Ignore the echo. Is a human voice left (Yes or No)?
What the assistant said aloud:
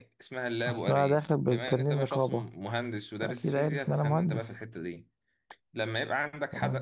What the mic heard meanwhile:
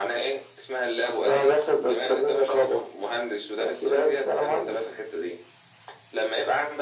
No